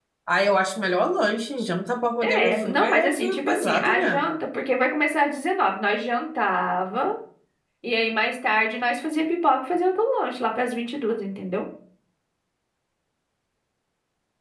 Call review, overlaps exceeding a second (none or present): present